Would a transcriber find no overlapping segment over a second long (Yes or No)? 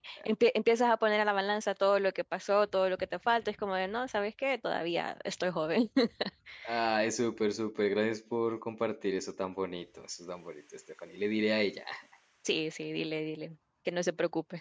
Yes